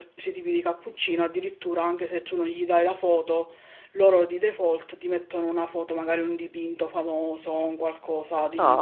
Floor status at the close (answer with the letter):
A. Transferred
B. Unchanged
A